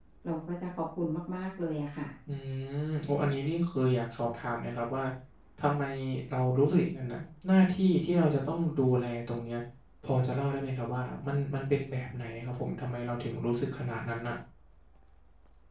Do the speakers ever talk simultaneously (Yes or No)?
No